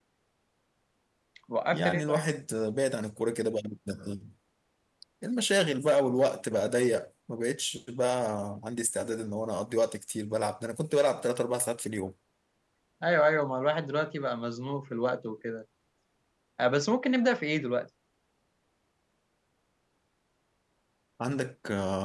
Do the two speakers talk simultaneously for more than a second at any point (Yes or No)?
No